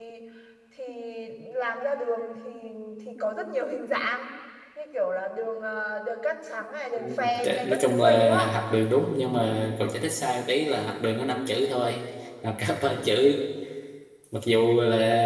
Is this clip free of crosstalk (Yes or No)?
No